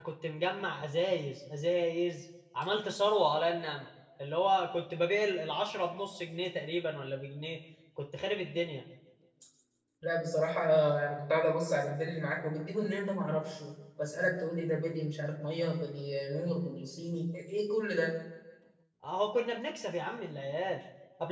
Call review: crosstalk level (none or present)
none